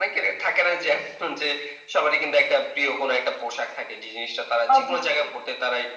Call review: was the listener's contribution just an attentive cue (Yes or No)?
Yes